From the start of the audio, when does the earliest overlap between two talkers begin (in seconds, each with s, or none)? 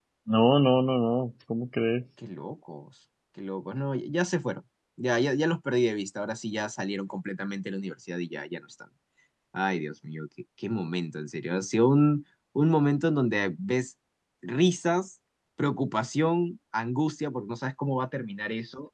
none